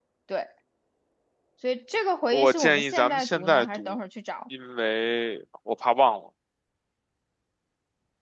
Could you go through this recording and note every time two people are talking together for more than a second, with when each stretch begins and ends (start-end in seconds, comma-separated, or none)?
2.3-4.0